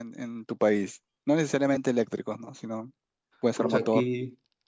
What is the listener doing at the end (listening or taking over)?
taking over